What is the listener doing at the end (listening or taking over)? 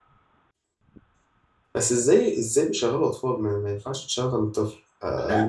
taking over